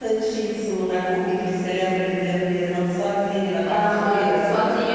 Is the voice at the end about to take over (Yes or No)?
Yes